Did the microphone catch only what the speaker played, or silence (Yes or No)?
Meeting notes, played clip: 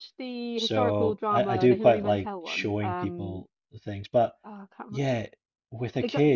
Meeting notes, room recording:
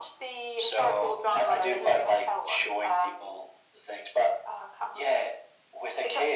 Yes